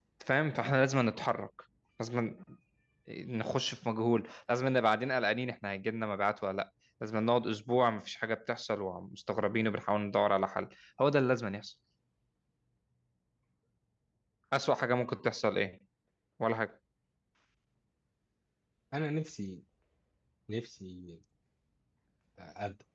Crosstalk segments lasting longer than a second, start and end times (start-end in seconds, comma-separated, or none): none